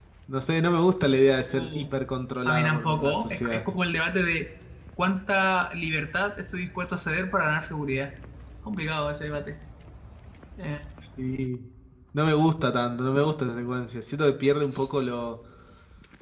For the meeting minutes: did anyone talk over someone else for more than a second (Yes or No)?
Yes